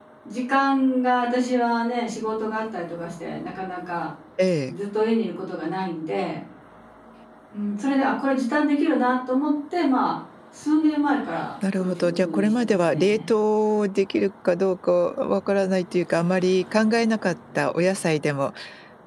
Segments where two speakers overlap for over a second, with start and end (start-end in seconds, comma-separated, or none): 11.8-13.3